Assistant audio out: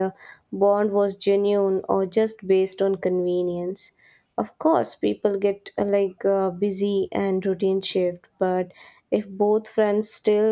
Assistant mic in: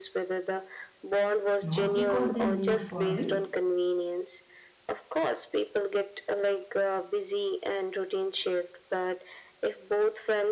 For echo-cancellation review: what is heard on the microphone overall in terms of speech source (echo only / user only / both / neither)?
both